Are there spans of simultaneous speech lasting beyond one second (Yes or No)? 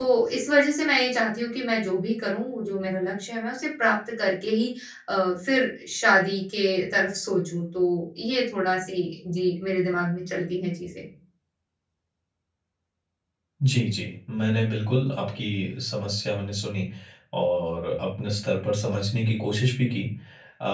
No